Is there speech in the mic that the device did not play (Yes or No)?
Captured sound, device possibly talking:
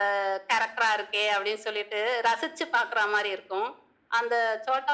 No